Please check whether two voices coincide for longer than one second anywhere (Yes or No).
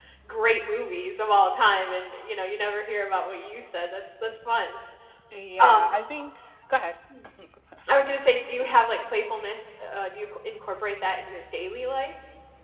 No